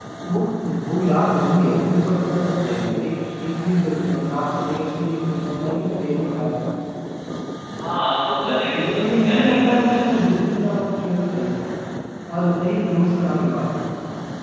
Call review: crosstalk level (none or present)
present